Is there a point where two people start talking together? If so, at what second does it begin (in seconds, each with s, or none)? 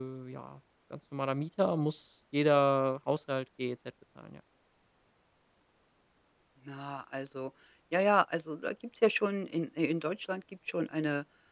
none